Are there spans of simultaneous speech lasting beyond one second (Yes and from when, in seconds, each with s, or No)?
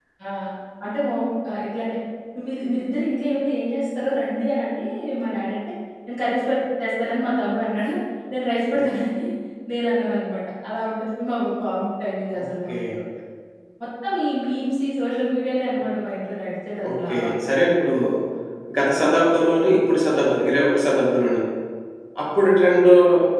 No